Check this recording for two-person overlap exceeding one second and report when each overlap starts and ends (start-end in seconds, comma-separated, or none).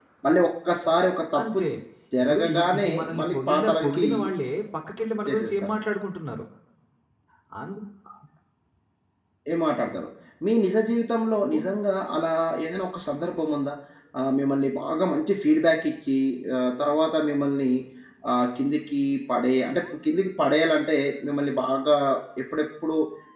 2.2-4.0